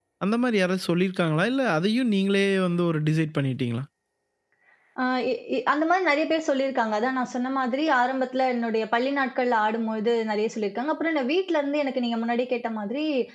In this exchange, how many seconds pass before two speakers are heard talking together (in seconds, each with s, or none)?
none